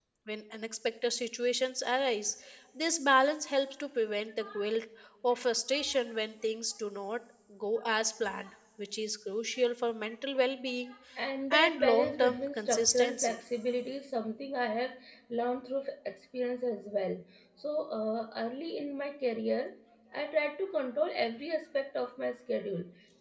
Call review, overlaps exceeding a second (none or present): present